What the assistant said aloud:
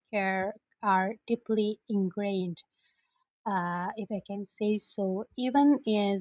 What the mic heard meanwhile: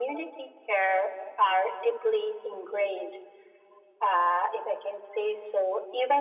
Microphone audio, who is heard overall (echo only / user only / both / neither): echo only